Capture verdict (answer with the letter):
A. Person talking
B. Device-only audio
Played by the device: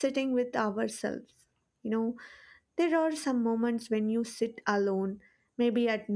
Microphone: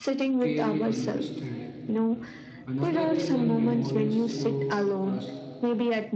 A